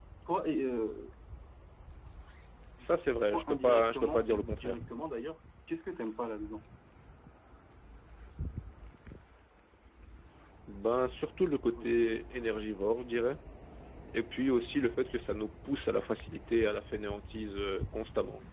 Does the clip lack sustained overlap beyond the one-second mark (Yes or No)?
No